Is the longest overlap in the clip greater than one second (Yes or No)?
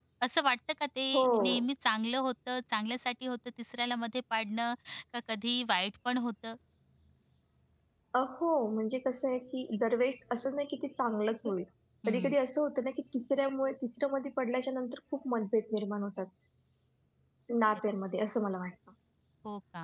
No